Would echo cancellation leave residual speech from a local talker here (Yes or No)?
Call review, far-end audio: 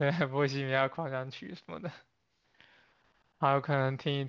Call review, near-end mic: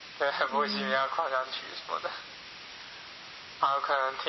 Yes